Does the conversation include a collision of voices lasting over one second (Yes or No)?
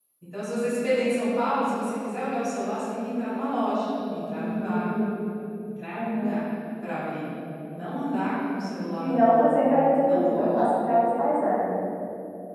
No